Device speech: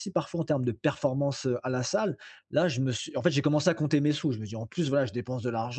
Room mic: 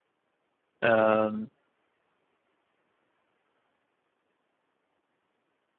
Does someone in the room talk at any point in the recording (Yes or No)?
Yes